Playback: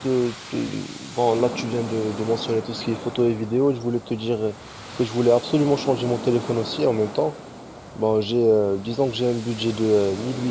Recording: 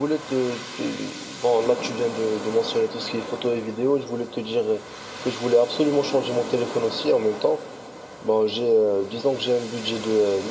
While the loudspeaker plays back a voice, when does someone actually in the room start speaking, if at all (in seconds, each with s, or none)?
none